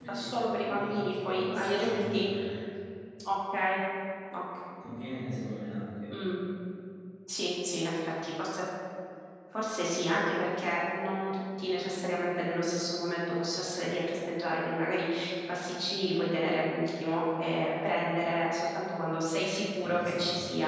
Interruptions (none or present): present